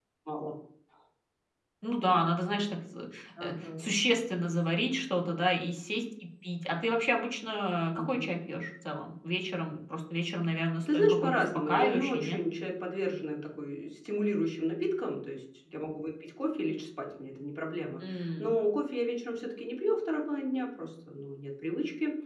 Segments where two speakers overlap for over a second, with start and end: 10.8-12.4

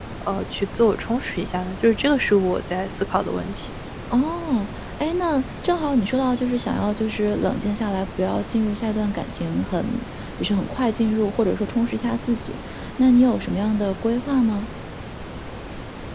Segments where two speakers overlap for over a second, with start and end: none

